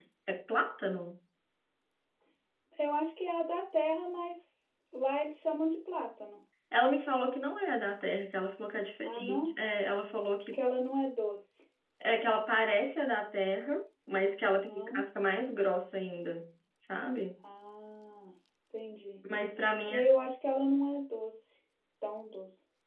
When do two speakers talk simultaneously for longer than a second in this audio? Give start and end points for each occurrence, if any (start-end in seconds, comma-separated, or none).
none